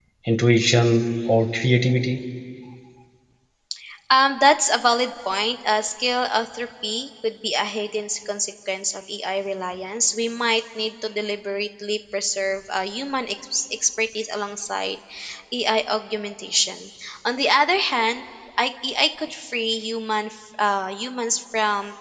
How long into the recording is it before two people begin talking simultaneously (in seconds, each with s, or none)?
none